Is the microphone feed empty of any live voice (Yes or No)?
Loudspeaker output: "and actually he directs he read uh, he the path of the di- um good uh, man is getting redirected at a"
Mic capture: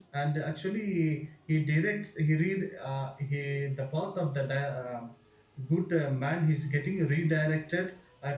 Yes